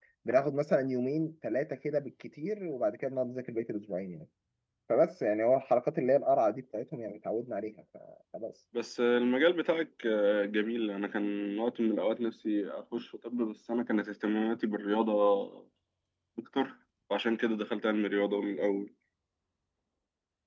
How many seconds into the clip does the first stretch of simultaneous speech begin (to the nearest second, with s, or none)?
none